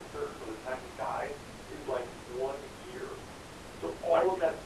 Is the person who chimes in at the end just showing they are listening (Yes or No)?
Yes